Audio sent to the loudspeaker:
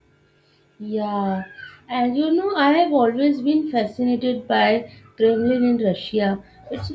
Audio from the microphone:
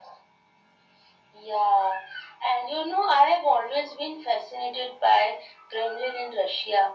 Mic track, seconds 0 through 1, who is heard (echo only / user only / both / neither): neither